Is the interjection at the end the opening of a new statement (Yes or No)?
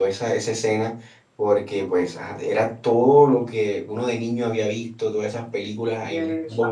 No